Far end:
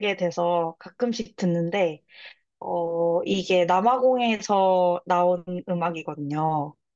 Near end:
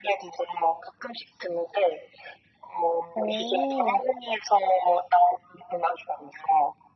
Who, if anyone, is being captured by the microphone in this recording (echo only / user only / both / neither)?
both